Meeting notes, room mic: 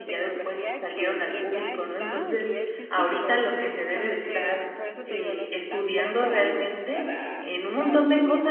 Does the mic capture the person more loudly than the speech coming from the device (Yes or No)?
Yes